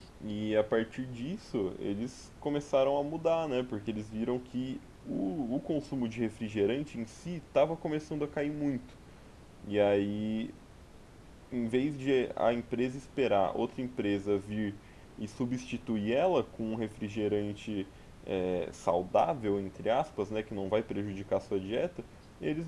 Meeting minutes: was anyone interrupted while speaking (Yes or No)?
No